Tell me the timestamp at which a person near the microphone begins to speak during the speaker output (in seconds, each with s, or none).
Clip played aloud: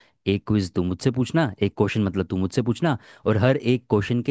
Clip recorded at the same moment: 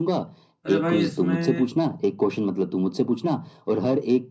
0.7 s